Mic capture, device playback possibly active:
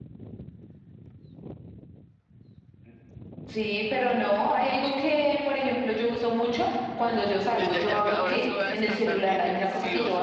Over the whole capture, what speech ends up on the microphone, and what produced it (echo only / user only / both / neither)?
both